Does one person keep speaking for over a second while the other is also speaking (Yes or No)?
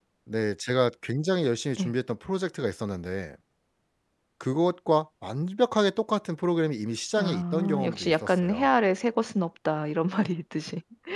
Yes